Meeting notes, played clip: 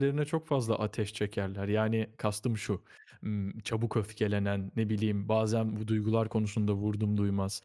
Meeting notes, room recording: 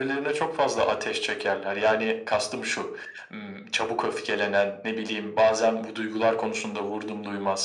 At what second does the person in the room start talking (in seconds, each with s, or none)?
none